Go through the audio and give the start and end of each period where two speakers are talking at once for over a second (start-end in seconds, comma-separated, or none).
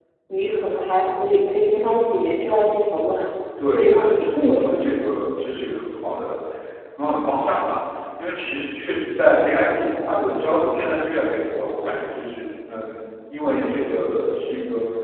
3.7-5.0